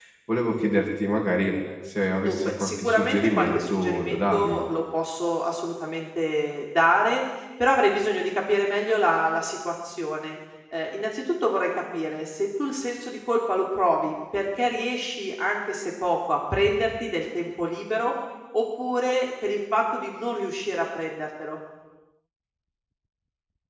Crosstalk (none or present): present